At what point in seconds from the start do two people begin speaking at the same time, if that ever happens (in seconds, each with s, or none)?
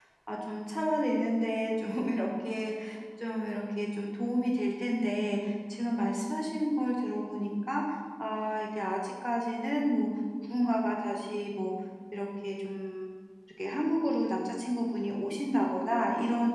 none